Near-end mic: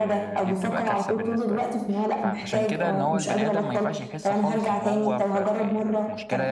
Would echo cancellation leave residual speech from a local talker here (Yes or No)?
Yes